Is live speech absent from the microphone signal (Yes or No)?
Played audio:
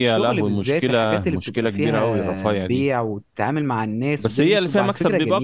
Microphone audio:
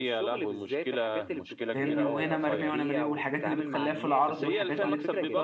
No